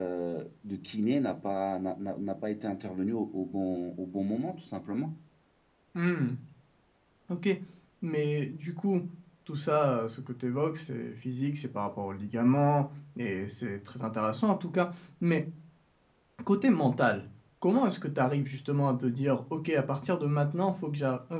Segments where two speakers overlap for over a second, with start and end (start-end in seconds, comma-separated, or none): none